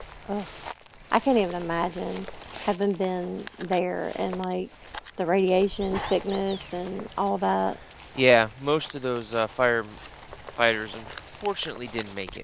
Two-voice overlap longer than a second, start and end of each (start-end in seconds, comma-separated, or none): none